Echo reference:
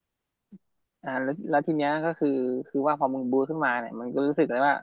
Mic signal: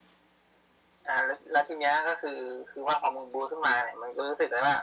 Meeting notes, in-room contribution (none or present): none